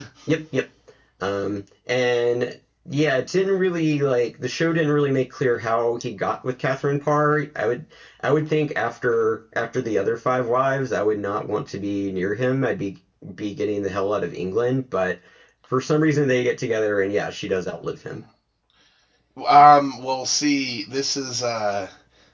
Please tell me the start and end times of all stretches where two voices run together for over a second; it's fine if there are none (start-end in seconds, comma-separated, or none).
none